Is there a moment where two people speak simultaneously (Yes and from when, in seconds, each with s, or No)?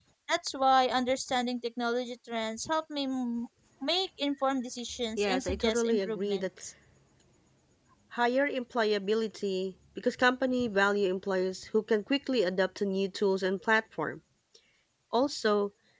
Yes, from 5.2 s